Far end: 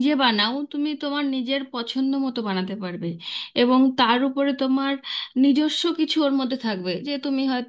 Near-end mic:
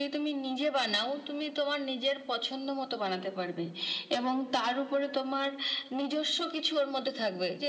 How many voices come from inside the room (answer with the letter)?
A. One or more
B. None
B